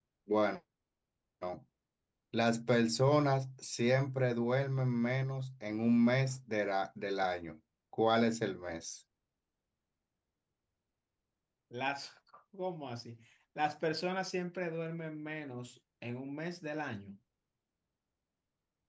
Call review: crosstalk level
none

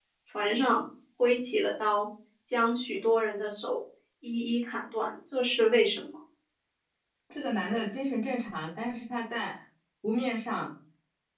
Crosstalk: none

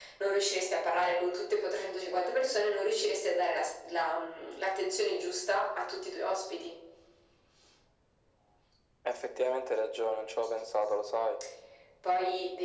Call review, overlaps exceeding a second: none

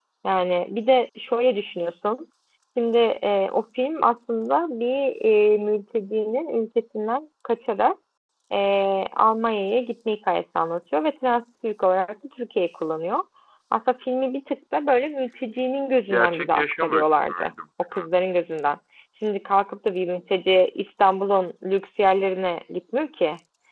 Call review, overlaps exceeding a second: present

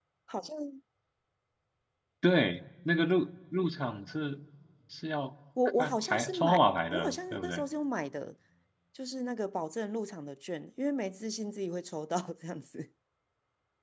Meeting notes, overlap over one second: present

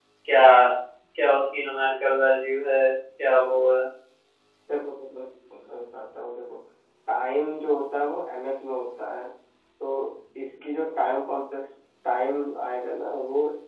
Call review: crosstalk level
none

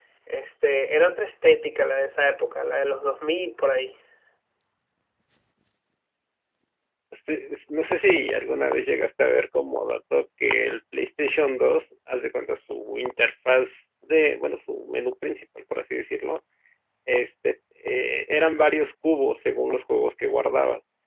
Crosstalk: none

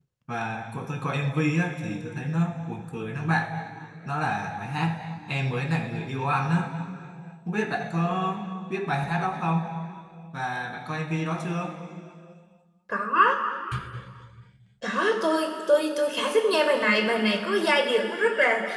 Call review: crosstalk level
none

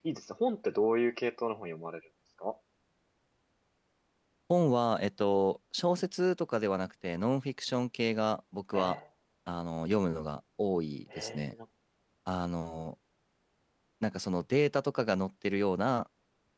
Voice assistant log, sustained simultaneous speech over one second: none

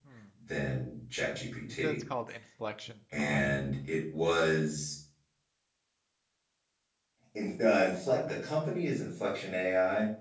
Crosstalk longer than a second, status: none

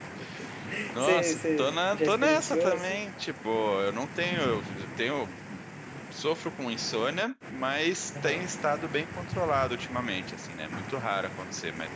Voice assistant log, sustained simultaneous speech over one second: present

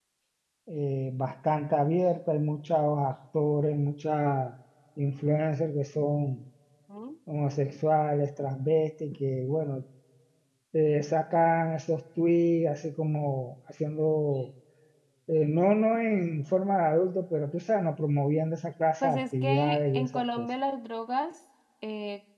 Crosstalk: present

